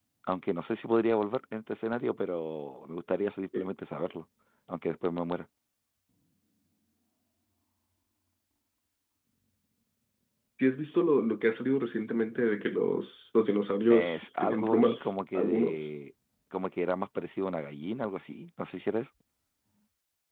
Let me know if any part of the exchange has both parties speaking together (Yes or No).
Yes